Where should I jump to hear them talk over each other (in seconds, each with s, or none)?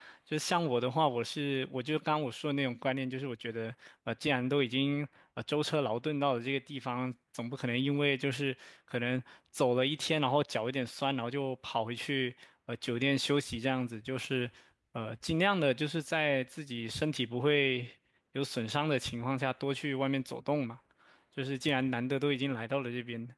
none